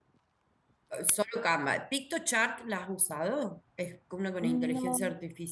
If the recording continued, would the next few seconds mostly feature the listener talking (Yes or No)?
No